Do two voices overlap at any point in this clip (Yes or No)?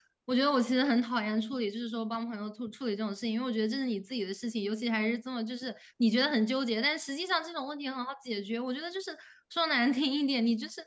No